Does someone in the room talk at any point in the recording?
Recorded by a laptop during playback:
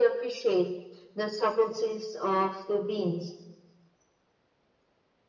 No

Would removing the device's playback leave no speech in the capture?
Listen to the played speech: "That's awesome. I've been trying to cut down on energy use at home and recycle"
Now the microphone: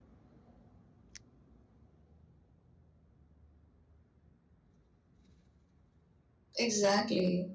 No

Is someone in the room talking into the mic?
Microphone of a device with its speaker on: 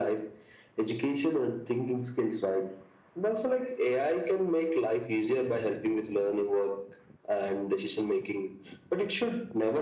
No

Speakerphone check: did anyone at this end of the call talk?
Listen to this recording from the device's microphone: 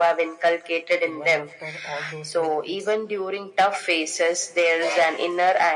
Yes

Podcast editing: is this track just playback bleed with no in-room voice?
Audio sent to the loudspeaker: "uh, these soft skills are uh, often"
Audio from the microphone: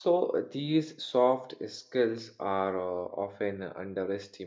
Yes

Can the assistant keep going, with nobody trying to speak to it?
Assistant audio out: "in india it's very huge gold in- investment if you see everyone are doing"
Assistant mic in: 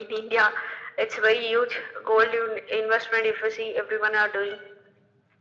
Yes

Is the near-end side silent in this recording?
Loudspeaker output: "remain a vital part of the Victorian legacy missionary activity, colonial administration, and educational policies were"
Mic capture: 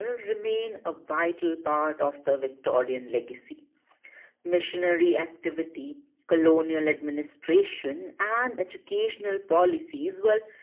Yes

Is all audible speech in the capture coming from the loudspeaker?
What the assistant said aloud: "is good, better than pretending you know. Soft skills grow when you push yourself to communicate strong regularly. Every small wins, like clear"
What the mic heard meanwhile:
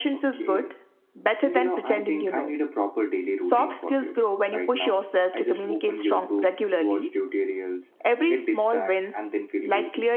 No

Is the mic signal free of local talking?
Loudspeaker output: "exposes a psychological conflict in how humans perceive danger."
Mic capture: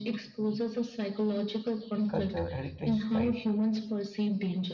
No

